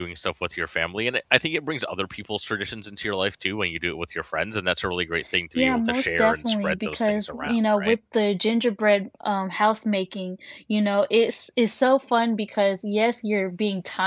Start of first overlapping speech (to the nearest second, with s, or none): 6 s